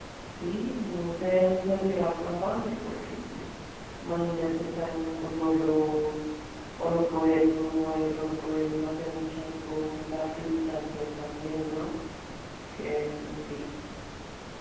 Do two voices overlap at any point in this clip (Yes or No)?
No